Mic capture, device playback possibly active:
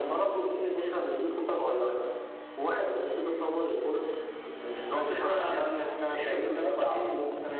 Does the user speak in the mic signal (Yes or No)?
No